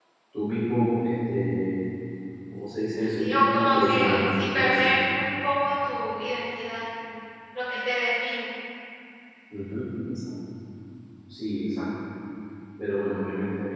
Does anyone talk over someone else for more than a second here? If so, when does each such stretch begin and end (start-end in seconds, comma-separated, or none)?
3.2-4.9